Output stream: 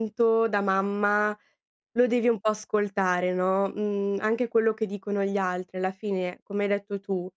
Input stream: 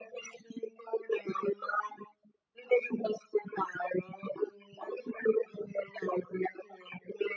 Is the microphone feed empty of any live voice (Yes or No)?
Yes